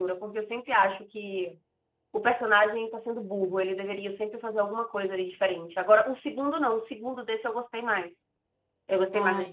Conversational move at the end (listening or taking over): listening